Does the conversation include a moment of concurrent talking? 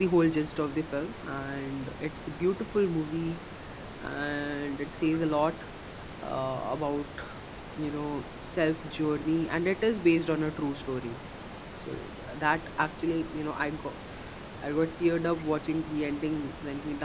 No

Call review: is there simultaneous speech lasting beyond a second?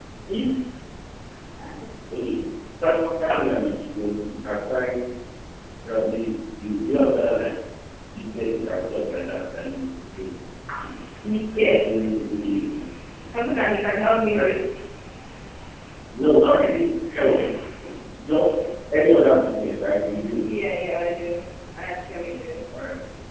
No

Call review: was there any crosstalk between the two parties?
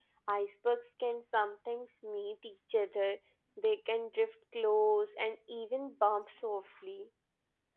No

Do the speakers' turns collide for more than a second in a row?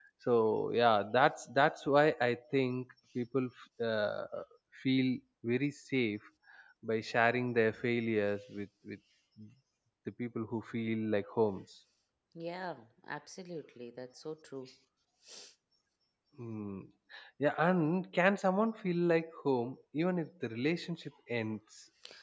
No

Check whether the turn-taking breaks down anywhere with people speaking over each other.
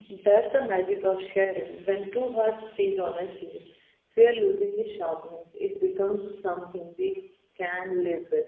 No

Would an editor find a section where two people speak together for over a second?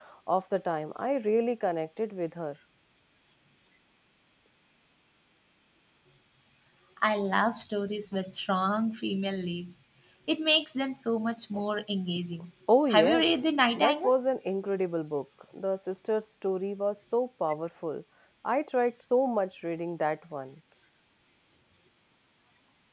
Yes, from 12.7 s

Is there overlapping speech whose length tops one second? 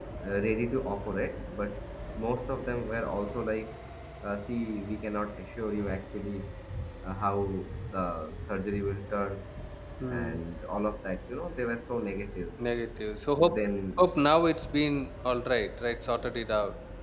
No

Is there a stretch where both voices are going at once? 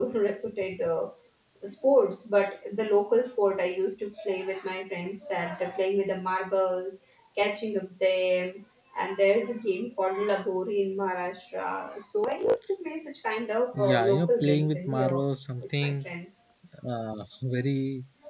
Yes, from 13.7 s

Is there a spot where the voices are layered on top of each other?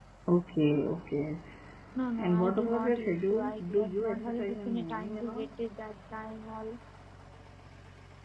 Yes, from 2.2 s

